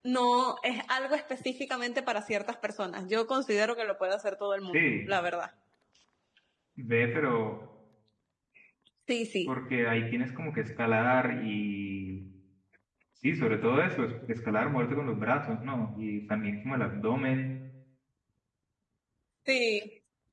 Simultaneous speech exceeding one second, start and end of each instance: none

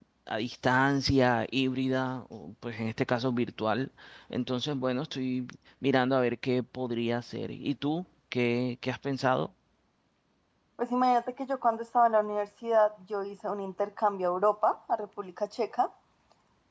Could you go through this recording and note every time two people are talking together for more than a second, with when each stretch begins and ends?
none

